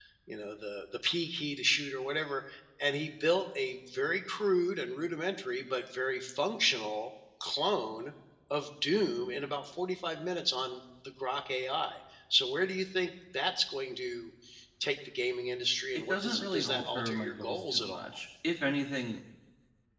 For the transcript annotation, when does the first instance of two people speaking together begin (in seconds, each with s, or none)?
16.1 s